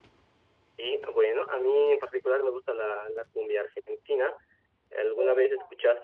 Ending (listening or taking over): listening